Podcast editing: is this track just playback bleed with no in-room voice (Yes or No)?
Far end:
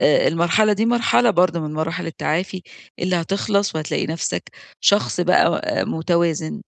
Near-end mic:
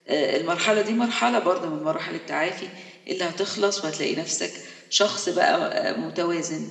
Yes